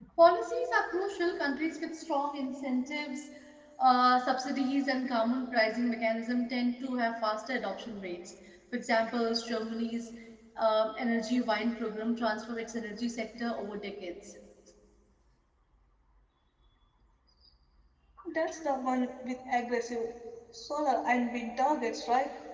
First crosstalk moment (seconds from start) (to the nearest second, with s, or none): none